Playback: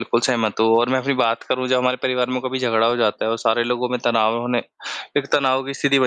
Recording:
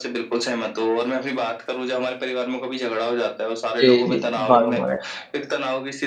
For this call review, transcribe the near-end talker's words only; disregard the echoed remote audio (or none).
जी, जी। भागम-भाग है।